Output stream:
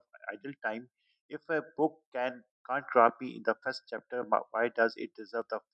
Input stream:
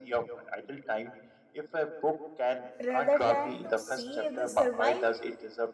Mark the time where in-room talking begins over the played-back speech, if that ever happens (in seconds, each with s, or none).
2.8 s